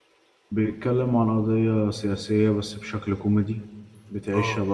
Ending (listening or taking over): listening